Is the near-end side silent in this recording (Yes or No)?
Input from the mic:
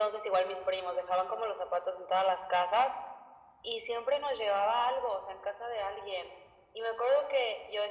Yes